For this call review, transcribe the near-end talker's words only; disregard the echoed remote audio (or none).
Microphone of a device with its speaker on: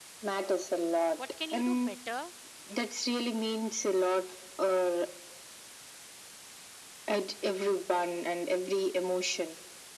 what can you do better